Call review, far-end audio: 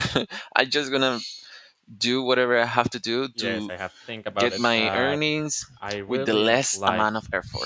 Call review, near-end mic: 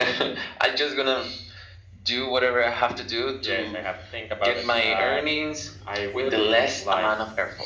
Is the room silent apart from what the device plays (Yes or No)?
Yes